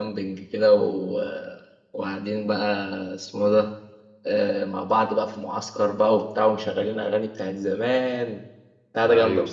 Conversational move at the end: taking over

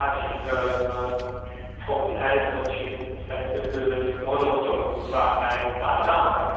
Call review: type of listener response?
listening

